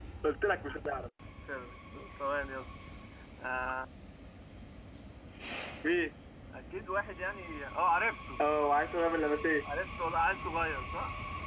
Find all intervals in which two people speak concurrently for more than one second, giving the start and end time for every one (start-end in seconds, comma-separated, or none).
none